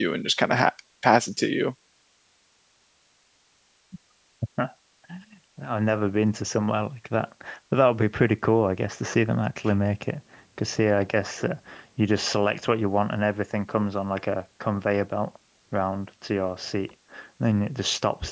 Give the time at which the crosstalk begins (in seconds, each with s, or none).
none